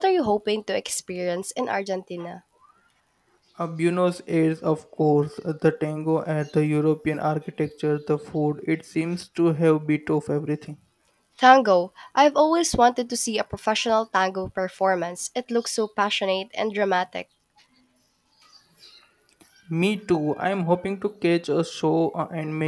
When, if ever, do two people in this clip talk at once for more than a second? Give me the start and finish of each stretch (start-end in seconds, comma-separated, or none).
none